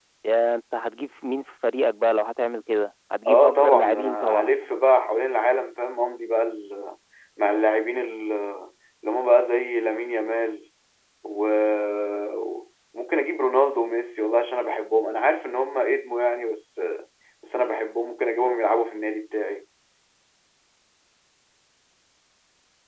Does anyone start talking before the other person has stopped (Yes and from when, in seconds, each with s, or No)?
Yes, from 3.2 s